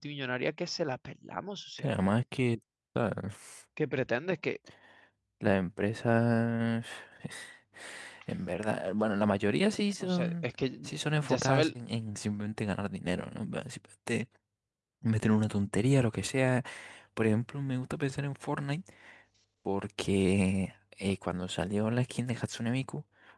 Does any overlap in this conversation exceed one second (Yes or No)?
No